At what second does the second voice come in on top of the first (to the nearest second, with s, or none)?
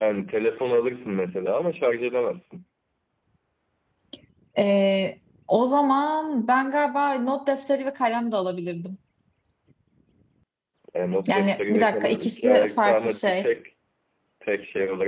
11 s